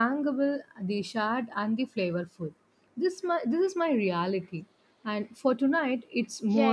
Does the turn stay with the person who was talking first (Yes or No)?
No